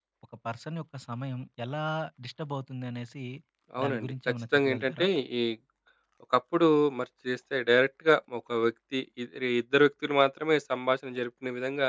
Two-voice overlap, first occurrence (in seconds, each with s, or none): 3.8 s